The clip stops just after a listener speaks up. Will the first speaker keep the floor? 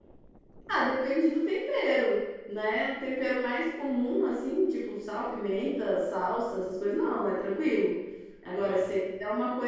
Yes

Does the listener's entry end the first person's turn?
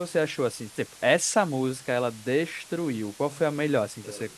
Yes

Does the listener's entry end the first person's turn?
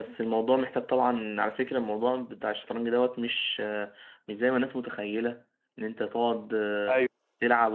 No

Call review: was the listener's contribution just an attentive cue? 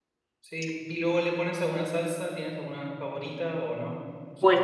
No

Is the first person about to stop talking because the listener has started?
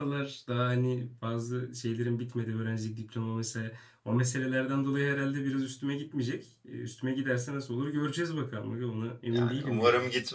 Yes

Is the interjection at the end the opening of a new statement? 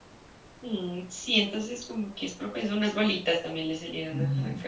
Yes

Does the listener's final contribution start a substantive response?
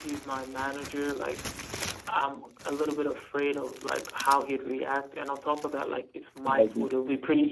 No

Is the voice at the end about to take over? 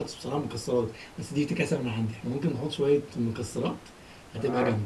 Yes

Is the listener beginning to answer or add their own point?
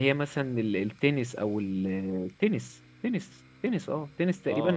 Yes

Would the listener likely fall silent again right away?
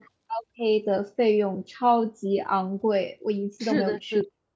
No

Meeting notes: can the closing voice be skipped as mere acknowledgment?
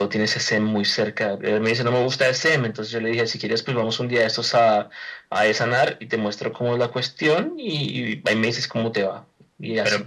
No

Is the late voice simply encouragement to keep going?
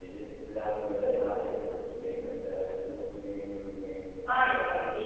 No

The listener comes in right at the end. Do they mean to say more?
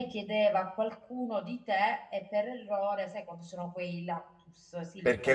Yes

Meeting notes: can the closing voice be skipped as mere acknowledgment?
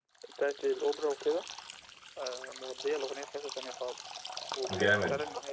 Yes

